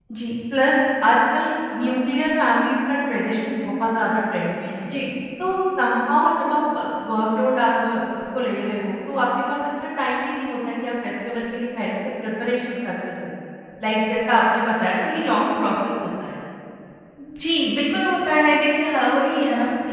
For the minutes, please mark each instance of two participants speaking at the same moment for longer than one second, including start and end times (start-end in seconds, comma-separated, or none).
none